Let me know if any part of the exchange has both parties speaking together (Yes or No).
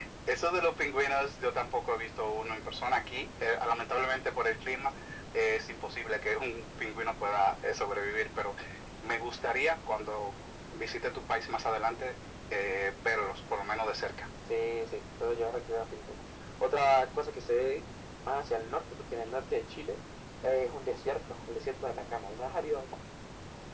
No